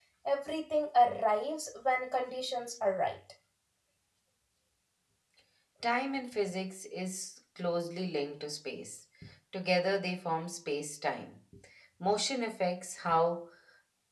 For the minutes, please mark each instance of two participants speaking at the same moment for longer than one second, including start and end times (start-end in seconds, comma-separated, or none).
none